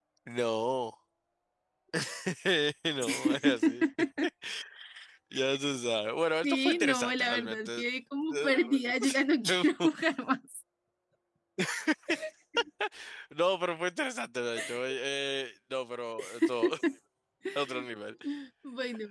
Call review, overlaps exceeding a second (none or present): present